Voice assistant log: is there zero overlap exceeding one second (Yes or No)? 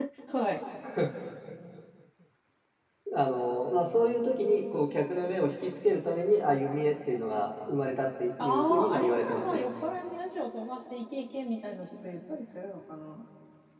No